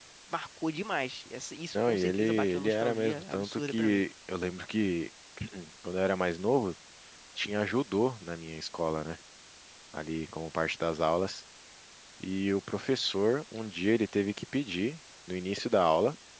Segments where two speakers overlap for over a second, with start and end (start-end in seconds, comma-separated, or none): 1.8-4.0